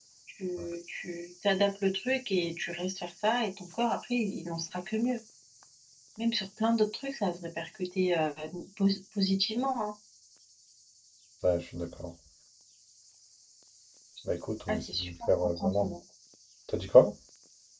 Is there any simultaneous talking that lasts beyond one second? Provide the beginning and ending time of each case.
14.7-15.9

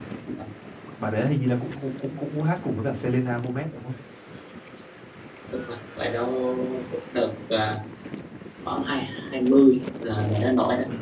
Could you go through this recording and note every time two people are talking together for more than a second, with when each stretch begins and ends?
none

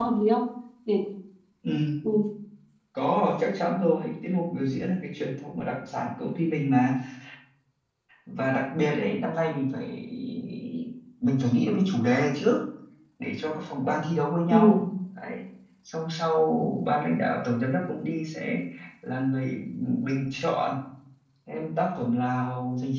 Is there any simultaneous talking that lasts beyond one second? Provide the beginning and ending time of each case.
none

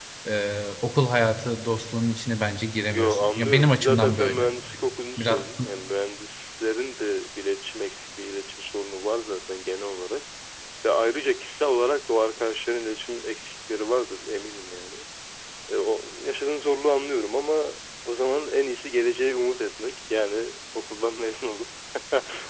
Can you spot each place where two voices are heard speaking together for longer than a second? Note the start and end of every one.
2.9-4.5

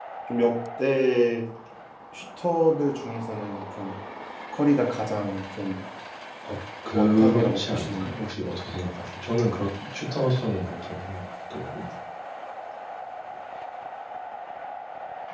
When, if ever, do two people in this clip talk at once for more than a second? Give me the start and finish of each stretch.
6.9-8.1

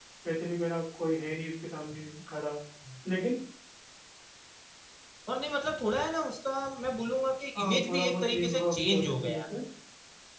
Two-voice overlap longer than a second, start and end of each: 7.5-9.4

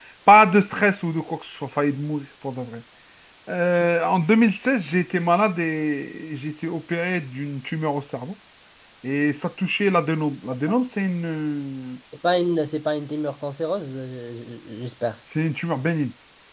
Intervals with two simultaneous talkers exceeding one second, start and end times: none

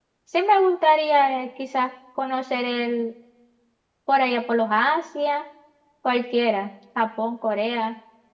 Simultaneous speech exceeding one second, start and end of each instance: none

